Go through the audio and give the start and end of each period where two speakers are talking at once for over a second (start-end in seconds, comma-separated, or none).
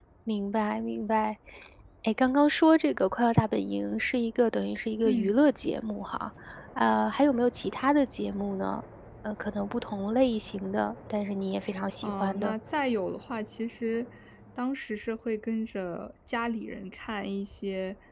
none